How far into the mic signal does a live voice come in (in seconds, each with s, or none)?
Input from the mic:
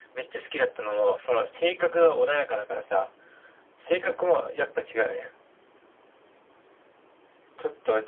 none